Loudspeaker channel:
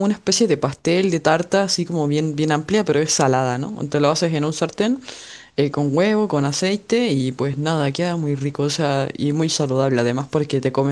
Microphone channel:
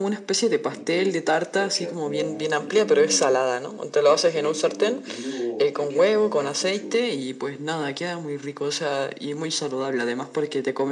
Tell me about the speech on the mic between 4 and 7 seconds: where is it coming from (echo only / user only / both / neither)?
both